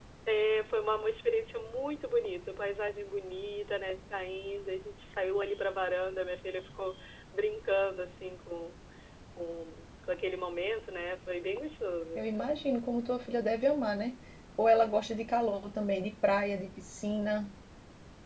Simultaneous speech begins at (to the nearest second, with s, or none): none